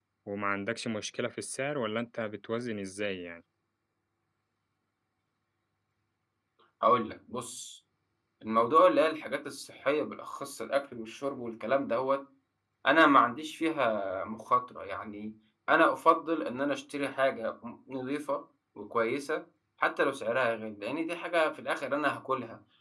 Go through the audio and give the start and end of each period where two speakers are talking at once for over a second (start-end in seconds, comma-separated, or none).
none